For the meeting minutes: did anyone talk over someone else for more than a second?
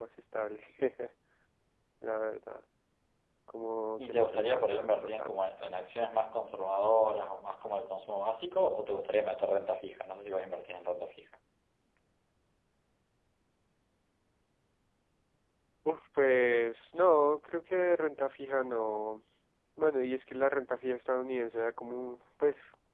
Yes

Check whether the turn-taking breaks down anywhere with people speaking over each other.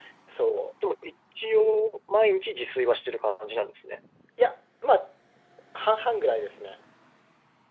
No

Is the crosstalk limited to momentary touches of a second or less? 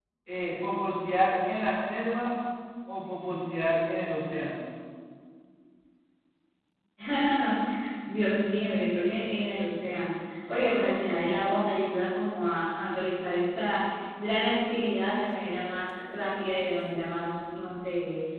Yes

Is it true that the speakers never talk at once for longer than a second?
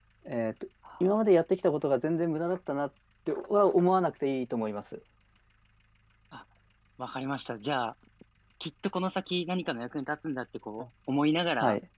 Yes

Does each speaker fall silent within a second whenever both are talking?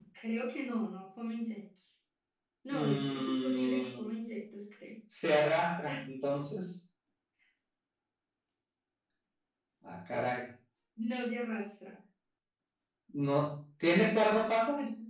No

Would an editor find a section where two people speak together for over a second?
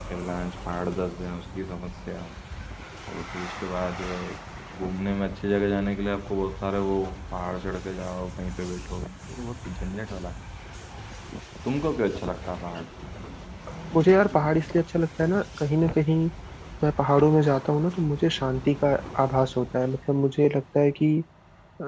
No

